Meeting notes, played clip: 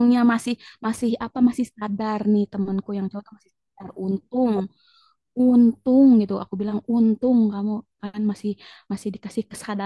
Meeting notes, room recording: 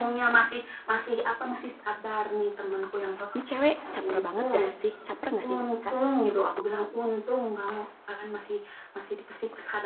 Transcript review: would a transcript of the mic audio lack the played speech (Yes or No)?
No